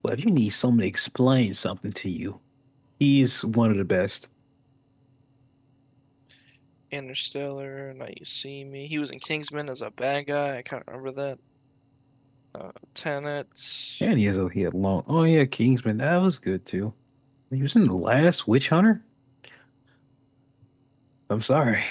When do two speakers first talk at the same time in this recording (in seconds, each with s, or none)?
none